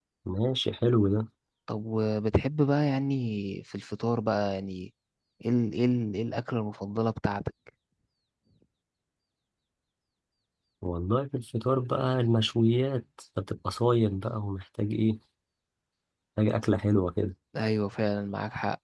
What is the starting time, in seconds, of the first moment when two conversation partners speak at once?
none

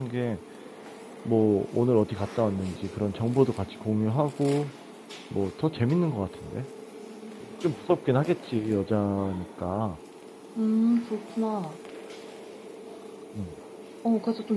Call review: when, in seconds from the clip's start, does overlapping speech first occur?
none

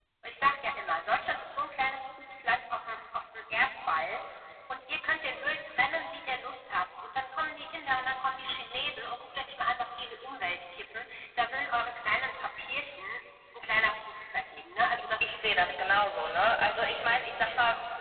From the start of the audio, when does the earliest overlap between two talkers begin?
15 s

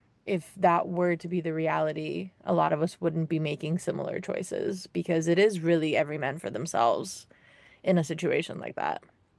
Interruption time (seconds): none

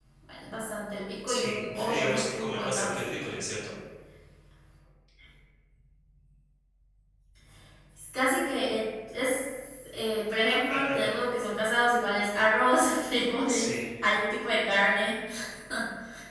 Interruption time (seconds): 1 s

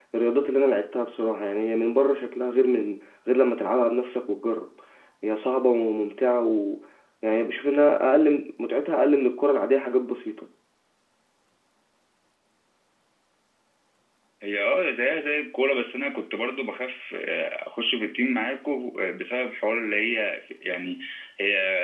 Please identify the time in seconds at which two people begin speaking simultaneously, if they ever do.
none

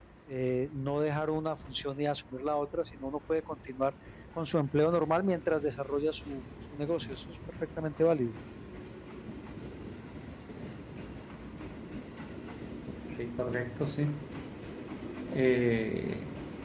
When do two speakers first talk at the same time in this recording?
none

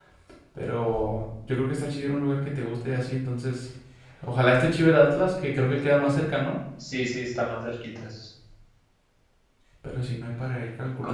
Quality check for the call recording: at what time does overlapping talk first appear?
none

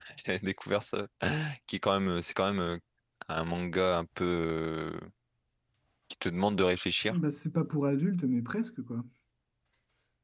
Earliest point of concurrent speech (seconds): none

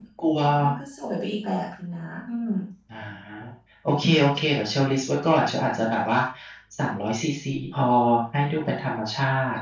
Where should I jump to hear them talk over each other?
none

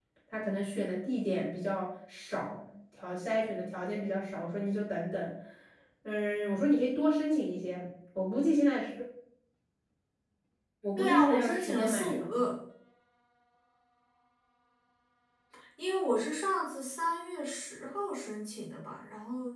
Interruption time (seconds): 11 s

